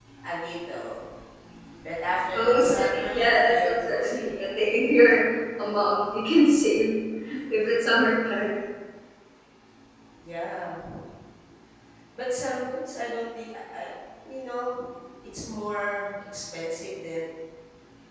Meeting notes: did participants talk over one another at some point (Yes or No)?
Yes